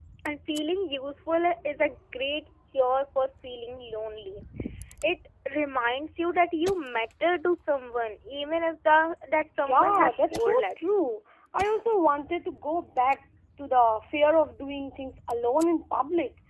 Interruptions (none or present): present